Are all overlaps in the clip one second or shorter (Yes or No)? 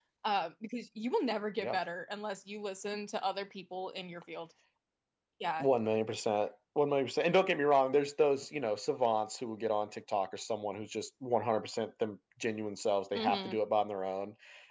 Yes